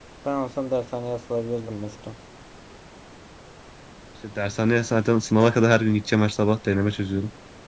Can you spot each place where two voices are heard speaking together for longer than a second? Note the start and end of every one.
none

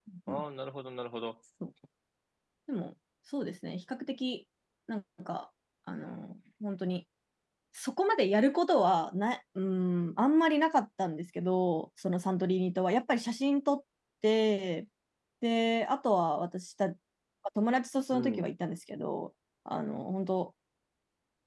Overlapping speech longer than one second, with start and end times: none

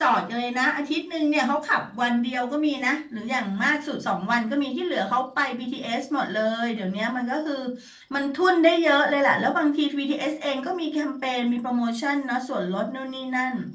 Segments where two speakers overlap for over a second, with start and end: none

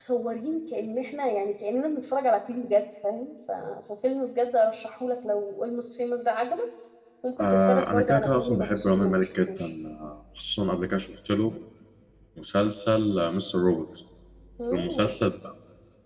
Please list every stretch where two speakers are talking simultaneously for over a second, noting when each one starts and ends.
7.4-9.7

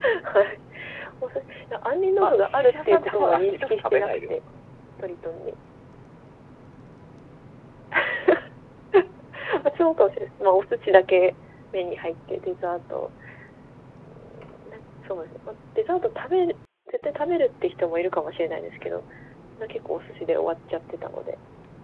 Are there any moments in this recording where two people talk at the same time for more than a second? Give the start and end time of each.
2.2-4.2

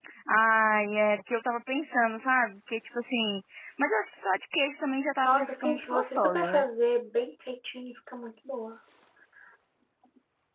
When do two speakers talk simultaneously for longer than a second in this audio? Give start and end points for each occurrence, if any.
5.2-6.6

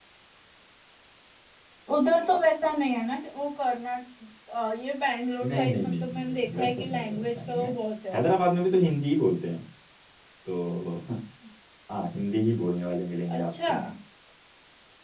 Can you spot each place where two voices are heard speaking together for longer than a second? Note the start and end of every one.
5.4-7.7

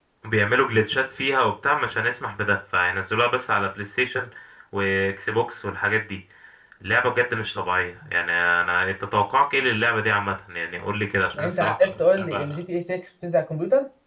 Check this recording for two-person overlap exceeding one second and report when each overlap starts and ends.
11.3-12.6

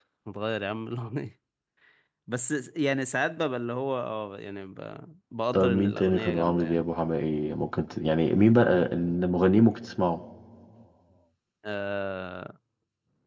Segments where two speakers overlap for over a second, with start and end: 5.5-6.8

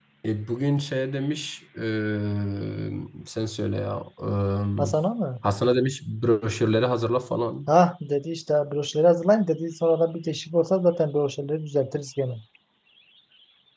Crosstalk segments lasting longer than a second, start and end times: none

